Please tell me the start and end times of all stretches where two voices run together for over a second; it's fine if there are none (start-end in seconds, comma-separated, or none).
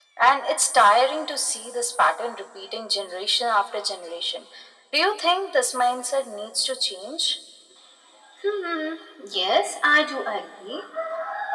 none